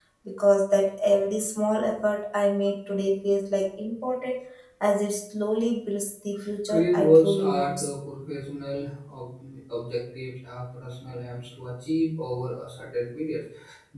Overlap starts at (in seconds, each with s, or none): 6.7 s